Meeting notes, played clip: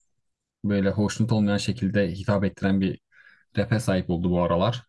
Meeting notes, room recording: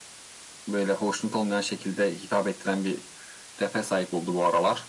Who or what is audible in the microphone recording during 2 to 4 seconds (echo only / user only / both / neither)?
echo only